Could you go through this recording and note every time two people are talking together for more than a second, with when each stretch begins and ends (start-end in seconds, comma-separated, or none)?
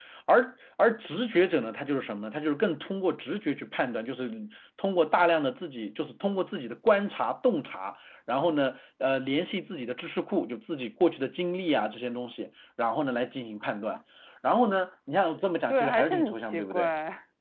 15.7-16.9